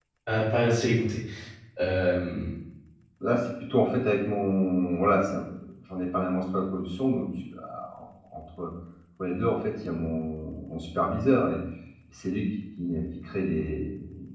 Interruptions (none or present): none